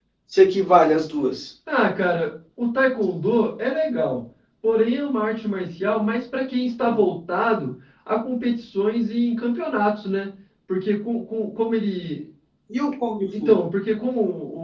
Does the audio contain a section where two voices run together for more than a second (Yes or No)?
No